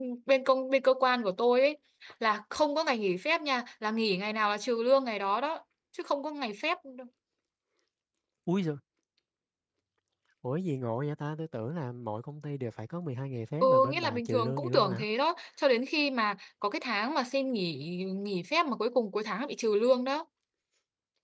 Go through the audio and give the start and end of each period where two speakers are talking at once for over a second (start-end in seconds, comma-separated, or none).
13.6-15.1